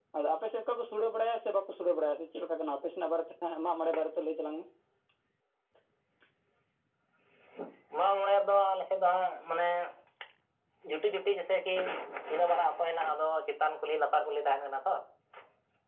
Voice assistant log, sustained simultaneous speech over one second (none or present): none